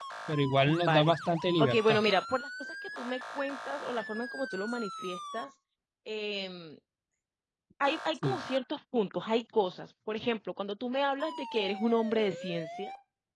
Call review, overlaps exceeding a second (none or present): none